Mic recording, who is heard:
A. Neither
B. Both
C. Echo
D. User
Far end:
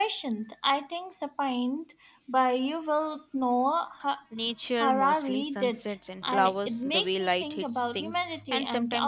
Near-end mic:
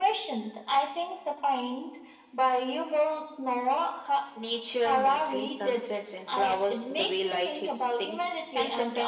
C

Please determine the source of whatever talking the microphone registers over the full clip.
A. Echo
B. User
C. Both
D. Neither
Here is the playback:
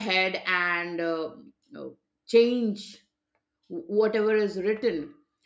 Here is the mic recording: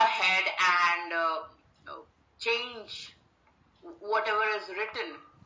A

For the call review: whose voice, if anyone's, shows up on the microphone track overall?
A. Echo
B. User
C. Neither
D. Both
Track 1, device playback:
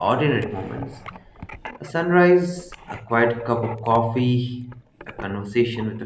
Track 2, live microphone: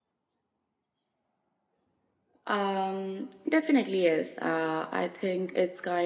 B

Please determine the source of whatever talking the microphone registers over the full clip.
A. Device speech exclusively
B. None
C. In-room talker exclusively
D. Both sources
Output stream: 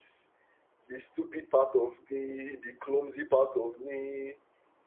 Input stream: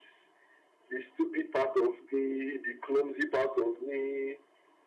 A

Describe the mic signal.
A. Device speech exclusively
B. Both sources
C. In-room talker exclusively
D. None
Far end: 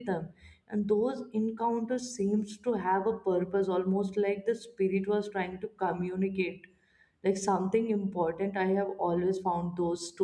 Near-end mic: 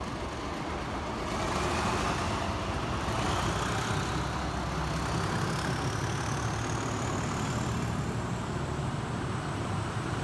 D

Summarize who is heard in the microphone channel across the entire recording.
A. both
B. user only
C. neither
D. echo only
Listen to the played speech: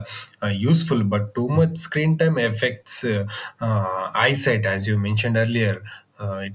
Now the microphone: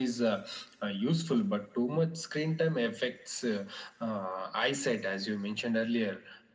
D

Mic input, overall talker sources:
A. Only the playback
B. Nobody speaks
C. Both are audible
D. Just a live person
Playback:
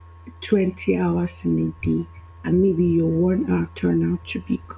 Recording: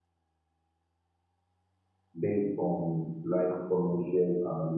D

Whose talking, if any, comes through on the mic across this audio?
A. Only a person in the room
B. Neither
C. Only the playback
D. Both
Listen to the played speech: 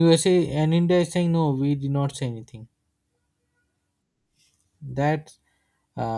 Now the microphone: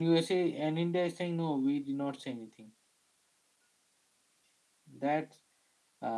C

